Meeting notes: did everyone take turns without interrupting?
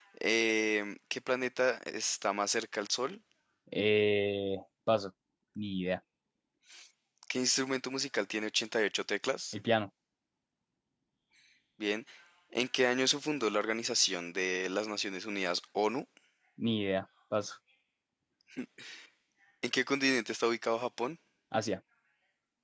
Yes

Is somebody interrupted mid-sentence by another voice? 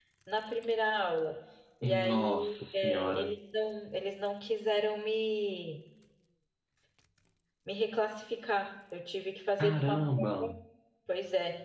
Yes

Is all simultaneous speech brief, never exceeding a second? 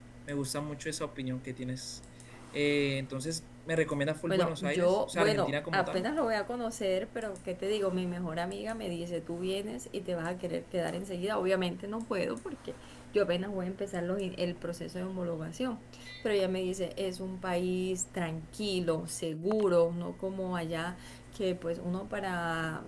No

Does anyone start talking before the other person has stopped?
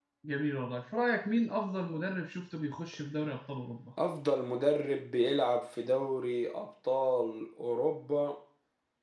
No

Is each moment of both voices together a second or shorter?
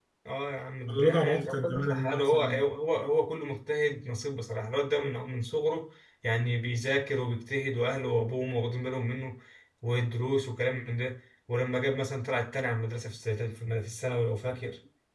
No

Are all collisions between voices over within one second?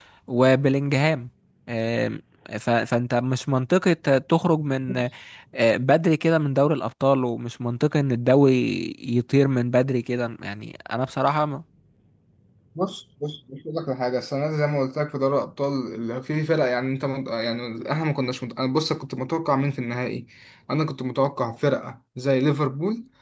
Yes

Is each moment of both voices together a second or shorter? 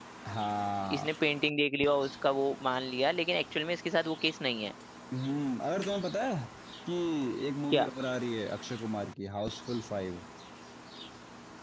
Yes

